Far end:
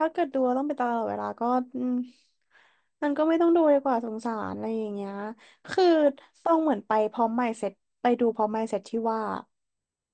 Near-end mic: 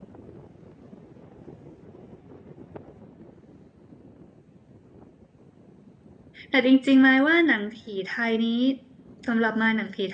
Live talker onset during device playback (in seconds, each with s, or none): 6.5 s